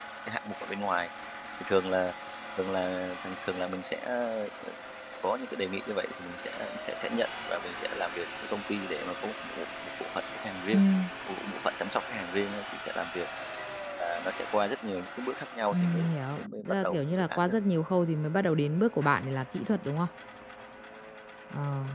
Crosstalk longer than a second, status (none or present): present